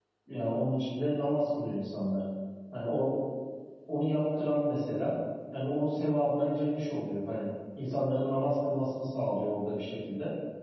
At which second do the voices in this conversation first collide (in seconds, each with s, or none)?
none